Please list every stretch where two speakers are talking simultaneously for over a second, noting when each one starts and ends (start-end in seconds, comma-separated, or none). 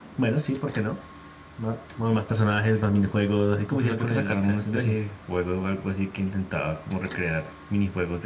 3.7-5.0